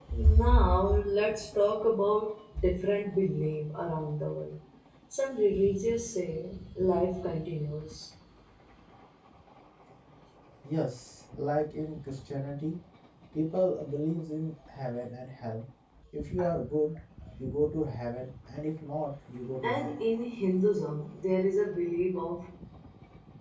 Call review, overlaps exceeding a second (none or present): none